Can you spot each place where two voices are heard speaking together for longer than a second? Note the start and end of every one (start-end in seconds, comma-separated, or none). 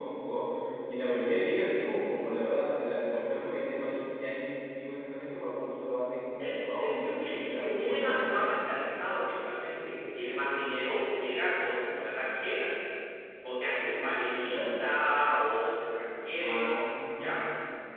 6.4-8.6